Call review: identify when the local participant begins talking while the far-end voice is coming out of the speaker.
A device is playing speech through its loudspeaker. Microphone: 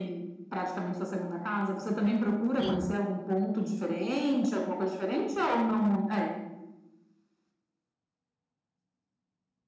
2.6 s

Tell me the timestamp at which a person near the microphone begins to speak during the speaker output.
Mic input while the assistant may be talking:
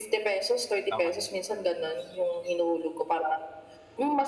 0.9 s

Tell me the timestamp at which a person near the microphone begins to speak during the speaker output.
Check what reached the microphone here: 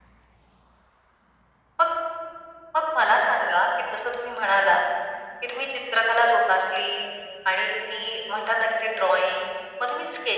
none

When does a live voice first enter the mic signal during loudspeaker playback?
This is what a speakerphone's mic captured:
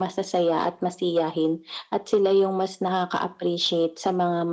none

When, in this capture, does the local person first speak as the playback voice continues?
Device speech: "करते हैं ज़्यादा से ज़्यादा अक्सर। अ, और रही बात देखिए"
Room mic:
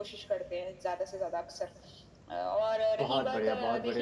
3.0 s

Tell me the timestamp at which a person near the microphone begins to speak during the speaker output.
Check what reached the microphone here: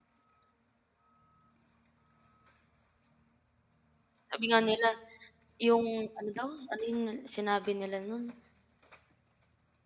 4.3 s

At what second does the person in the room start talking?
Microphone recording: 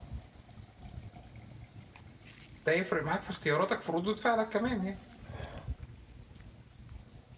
2.6 s

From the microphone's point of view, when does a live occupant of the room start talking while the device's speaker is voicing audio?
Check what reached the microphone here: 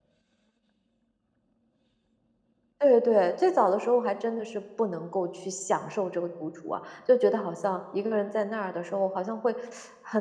2.8 s

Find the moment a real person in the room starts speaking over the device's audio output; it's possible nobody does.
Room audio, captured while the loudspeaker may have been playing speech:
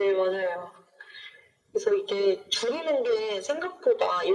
none

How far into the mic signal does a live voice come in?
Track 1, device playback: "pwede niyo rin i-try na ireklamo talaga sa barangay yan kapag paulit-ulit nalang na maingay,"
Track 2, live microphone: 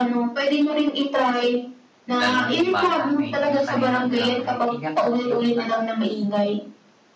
2.1 s

